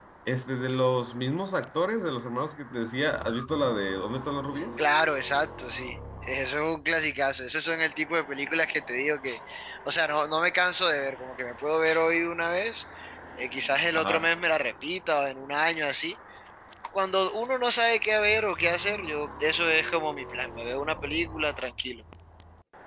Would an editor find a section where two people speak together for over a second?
No

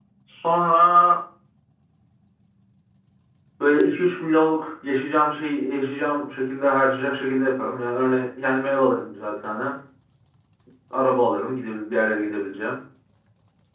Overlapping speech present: No

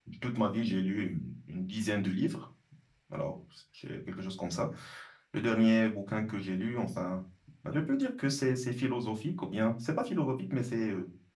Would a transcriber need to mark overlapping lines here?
No

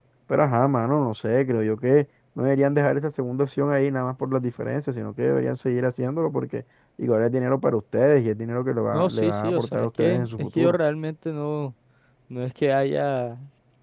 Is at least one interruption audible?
Yes, from 8.9 s

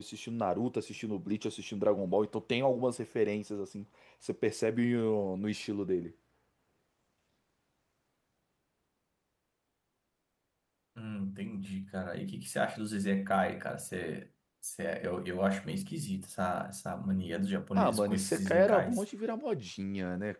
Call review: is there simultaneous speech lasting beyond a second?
Yes, from 17.8 s

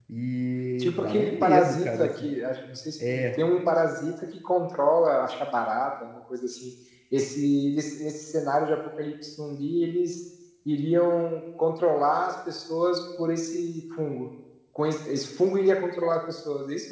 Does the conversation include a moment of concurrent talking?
Yes, from 0.8 s

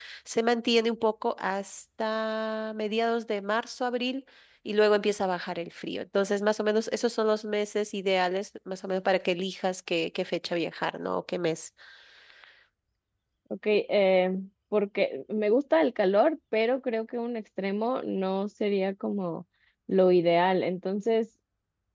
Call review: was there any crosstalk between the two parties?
No

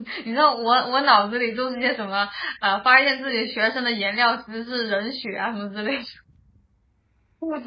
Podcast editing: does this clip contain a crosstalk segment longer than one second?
No

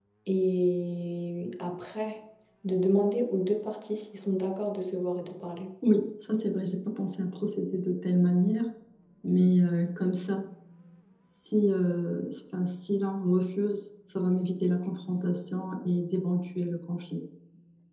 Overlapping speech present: No

